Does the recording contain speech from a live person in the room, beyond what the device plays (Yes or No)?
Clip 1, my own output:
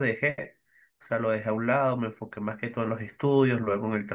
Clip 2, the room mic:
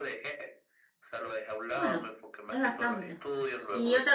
Yes